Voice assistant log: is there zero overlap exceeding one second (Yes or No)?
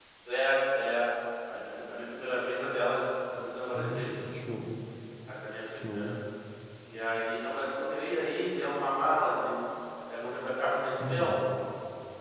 Yes